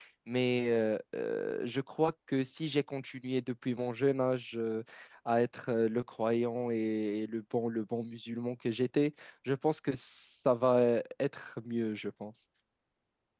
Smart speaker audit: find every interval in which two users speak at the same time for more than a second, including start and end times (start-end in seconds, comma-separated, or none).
none